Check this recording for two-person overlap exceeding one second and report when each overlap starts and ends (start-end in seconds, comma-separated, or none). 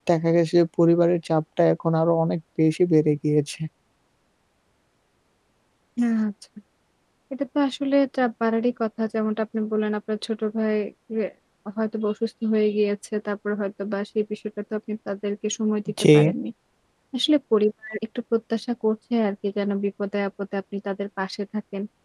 none